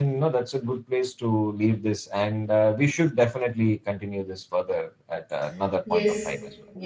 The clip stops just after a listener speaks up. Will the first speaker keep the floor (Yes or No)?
No